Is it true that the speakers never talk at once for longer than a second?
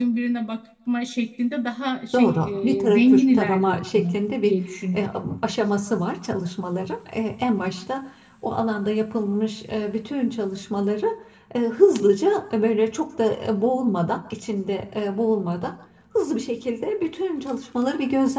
No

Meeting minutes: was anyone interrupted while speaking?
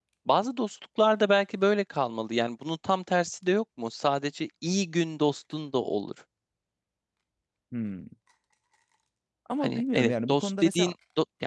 Yes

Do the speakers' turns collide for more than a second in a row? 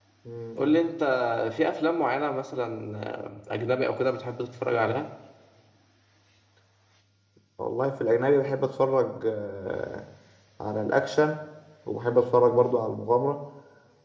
No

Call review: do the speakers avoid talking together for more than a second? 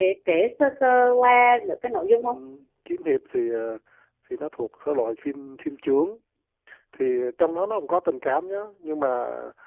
Yes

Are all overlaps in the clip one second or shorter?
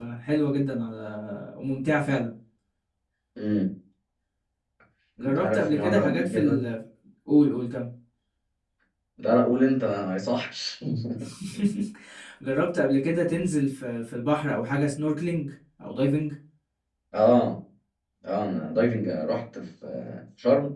No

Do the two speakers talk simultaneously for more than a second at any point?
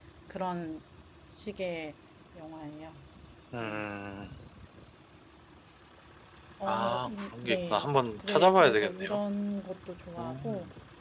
Yes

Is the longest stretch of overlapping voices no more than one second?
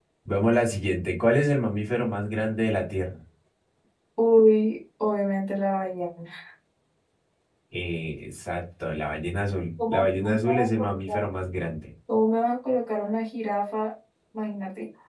No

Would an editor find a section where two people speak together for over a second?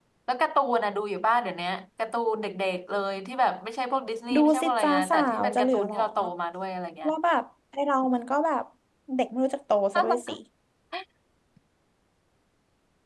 Yes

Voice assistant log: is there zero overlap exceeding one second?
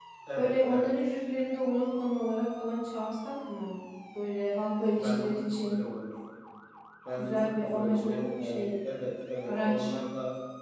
No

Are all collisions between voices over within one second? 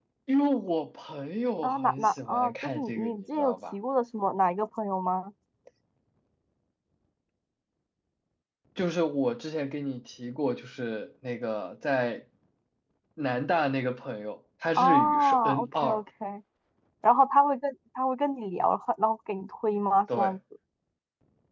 No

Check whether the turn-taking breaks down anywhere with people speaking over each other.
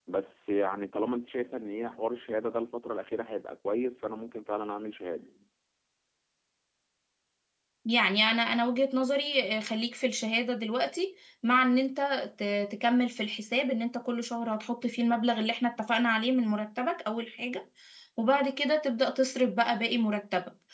No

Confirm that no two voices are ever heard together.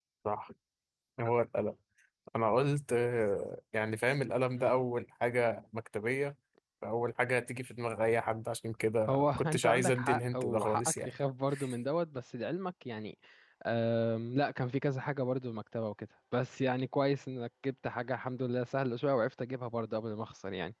No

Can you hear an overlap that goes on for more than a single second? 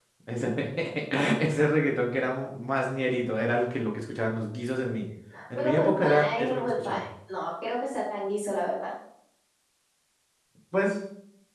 Yes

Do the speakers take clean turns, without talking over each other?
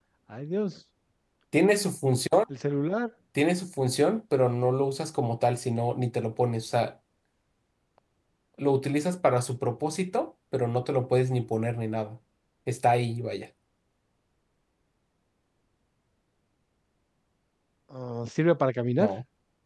Yes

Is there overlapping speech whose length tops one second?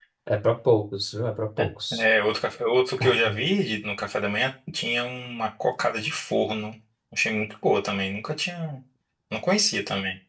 No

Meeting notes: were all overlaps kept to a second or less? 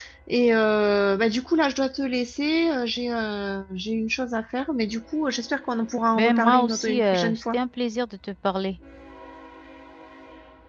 No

